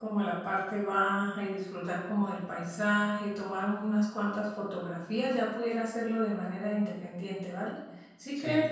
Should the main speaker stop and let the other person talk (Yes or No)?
No